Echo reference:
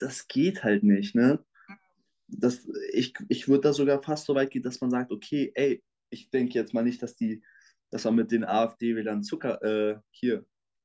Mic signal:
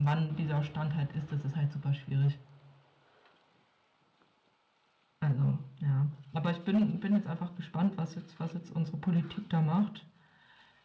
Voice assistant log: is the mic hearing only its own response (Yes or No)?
No